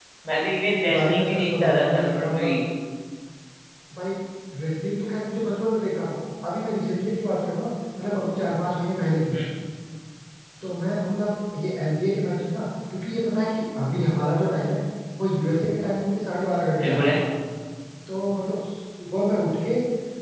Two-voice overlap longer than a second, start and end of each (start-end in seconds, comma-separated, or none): 0.9-2.5